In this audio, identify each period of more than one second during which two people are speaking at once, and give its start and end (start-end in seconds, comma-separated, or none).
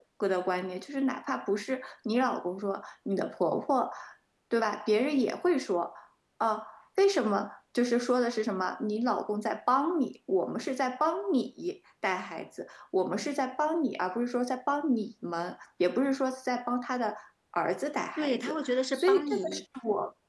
18.2-19.4